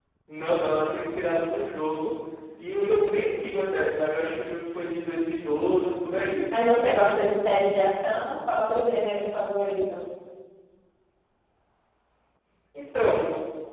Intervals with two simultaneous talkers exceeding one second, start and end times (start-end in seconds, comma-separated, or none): none